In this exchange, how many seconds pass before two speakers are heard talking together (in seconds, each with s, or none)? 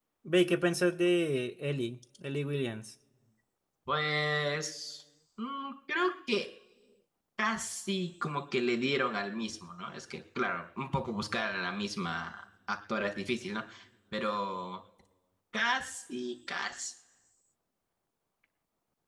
none